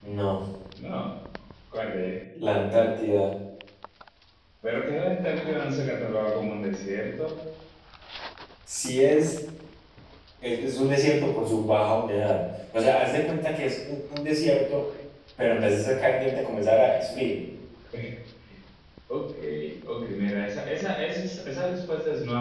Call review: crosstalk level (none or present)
none